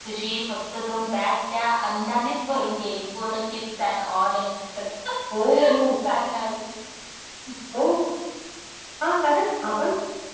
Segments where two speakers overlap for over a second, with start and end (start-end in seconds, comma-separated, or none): none